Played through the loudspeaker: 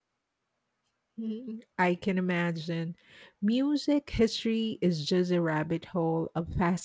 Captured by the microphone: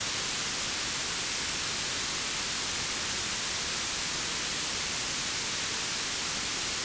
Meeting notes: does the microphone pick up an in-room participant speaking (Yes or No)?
No